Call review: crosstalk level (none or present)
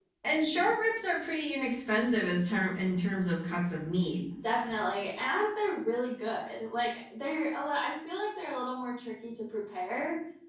none